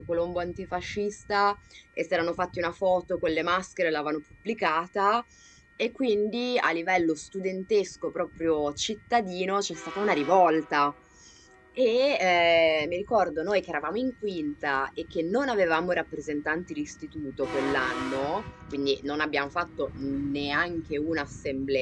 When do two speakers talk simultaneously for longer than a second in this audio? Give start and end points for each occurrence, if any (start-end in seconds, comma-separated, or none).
none